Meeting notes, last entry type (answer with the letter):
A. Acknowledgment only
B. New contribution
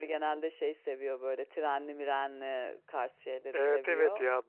B